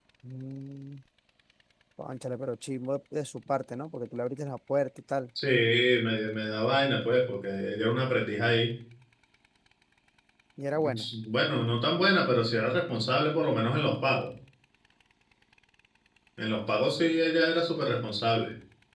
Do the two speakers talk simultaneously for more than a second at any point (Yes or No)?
No